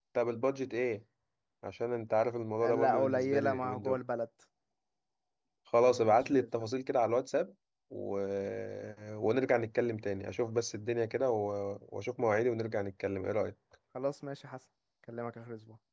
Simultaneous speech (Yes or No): Yes